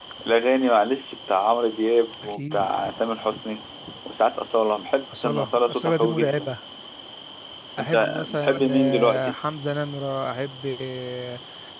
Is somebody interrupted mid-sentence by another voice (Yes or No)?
Yes